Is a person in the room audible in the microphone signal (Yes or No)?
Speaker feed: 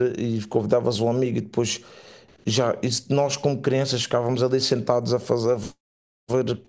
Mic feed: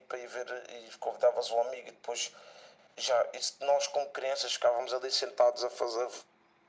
No